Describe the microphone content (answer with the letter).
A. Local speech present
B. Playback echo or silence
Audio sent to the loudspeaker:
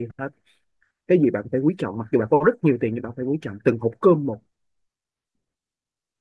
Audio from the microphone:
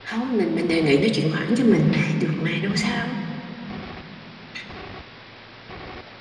A